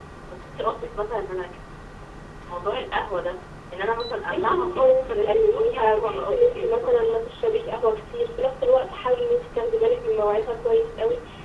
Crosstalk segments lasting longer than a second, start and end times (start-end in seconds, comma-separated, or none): 4.3-6.9